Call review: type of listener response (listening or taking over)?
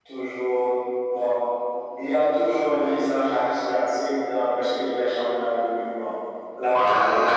taking over